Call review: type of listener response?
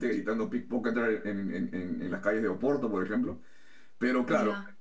listening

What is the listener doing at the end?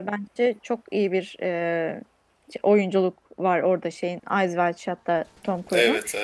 listening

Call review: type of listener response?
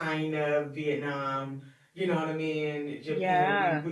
listening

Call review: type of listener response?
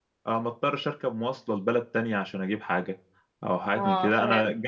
listening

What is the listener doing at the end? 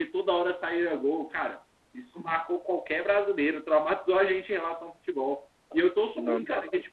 listening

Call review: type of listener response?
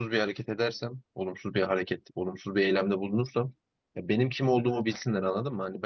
listening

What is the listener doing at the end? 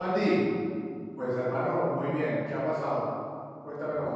taking over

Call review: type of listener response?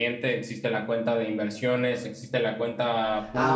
taking over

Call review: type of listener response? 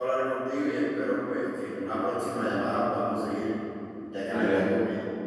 taking over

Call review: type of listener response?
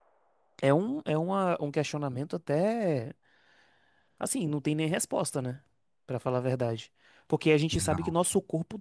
listening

